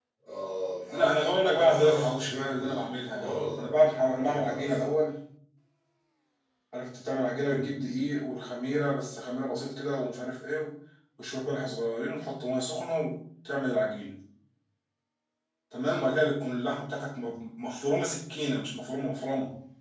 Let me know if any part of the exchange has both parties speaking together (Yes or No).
Yes